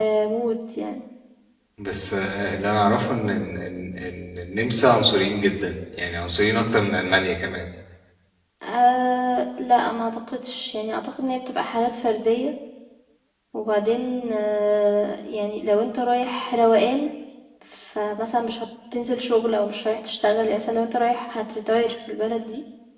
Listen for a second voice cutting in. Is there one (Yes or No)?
No